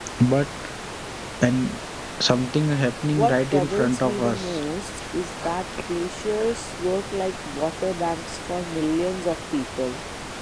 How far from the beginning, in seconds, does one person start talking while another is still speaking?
3.1 s

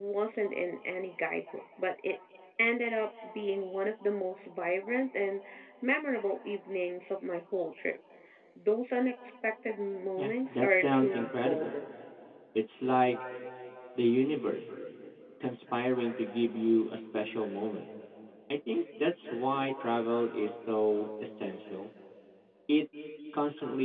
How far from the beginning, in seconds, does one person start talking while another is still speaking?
10.2 s

